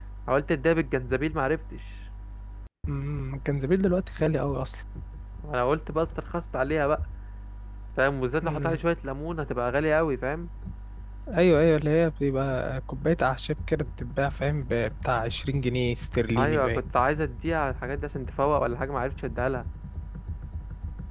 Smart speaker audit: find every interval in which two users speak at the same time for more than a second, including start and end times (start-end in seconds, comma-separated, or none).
none